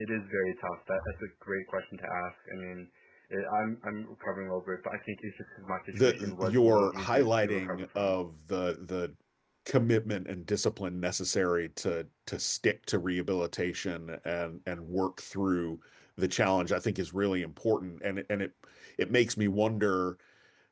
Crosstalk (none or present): present